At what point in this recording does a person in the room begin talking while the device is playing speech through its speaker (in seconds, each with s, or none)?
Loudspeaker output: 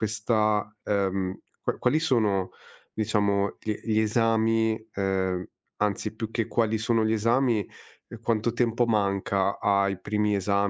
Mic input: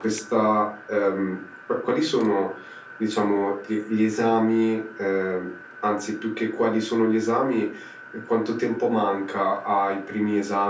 none